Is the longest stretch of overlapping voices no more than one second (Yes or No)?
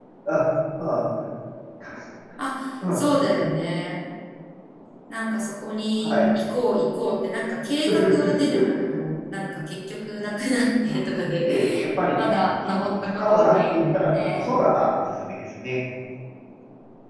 No